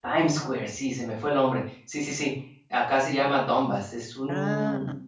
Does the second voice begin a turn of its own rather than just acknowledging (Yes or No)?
No